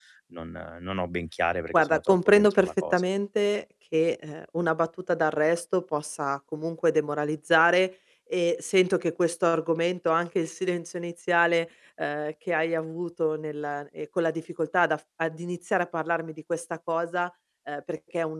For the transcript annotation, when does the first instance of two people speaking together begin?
2 s

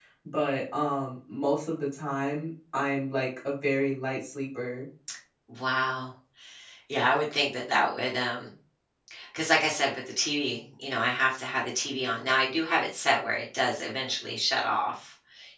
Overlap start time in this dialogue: none

